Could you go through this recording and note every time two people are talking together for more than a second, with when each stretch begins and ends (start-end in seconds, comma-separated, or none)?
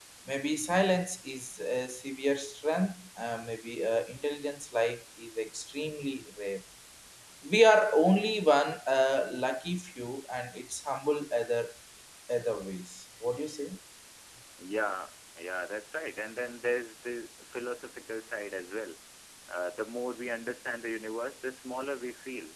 none